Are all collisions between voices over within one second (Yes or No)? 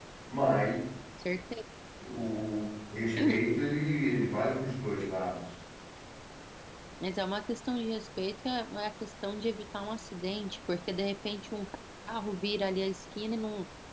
Yes